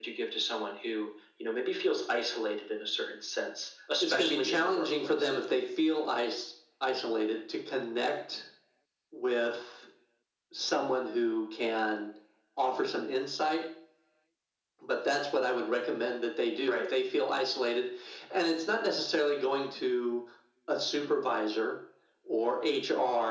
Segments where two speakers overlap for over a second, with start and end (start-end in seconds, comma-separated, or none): 4.0-5.3